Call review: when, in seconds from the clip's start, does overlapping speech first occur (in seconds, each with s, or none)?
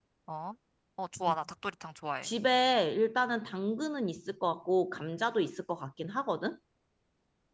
none